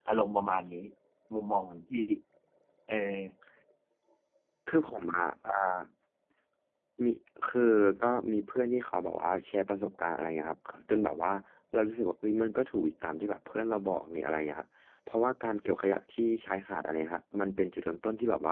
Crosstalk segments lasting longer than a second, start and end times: none

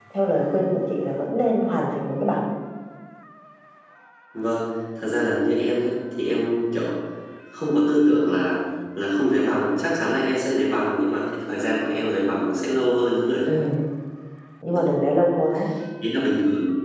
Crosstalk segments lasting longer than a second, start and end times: none

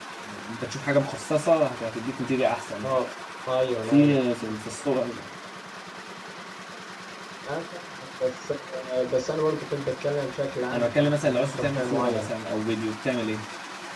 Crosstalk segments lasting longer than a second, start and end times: 10.7-12.3

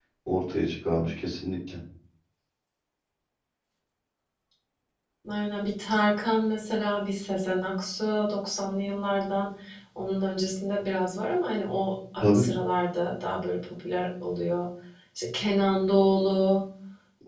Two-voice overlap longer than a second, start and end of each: none

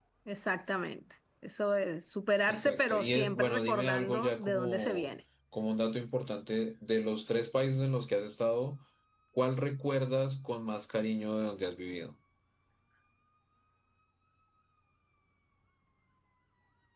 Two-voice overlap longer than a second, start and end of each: 2.5-5.1

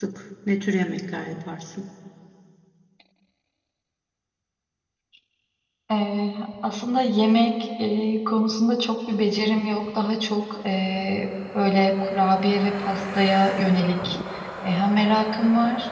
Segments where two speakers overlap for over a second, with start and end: none

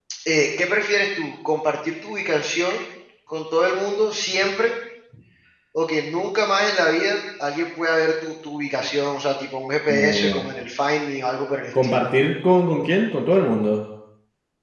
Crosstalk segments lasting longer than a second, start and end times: none

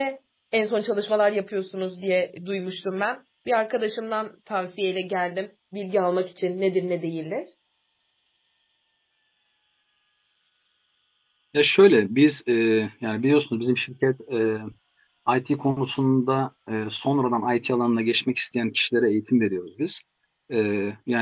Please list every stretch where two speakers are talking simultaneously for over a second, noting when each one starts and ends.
none

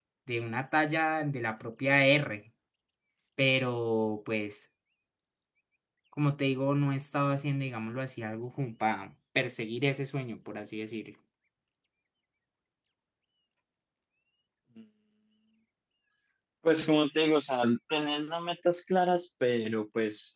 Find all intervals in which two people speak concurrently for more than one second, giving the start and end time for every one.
none

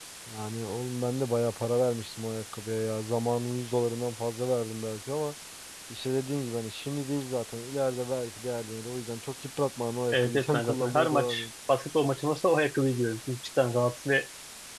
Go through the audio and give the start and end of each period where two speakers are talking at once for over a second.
10.1-11.5

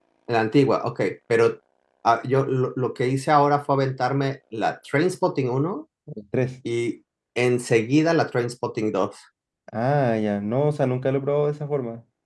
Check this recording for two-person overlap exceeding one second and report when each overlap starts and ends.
none

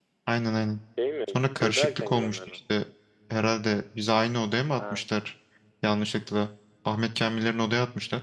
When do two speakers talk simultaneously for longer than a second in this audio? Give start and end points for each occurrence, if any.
1.3-2.6

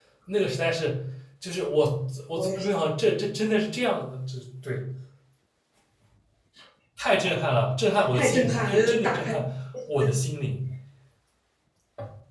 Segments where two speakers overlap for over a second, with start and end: 8.1-9.3

